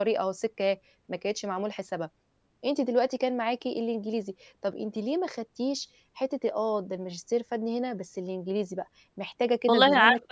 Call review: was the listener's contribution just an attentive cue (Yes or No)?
No